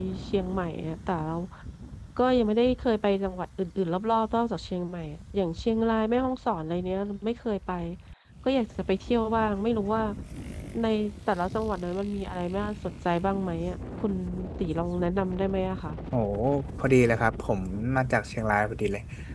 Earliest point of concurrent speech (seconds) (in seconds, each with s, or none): none